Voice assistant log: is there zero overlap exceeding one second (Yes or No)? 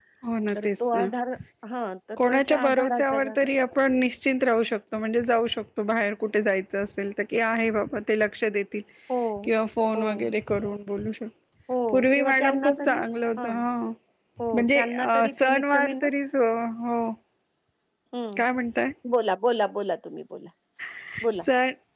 No